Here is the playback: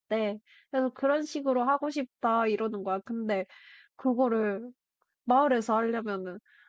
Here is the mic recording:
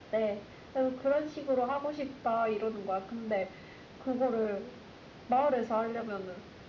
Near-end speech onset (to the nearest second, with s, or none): none